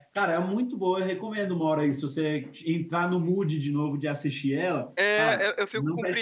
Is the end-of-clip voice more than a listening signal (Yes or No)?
Yes